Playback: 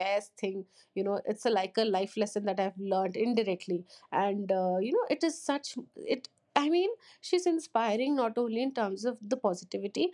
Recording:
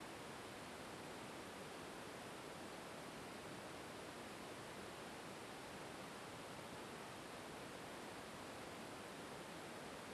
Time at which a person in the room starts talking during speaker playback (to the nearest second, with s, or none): none